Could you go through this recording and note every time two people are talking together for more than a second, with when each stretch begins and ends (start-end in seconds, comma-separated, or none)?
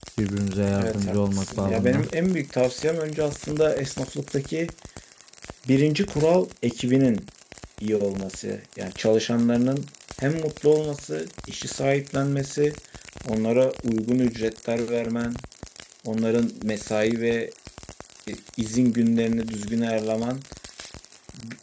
0.8-2.1